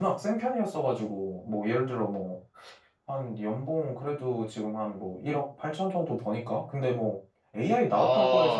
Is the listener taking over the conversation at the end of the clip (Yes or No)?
No